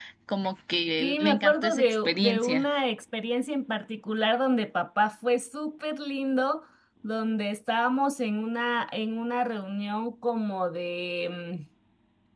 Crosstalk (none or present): present